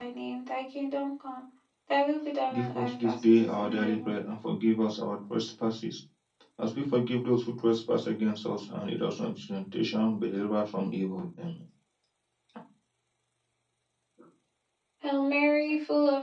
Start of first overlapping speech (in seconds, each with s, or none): 2.5 s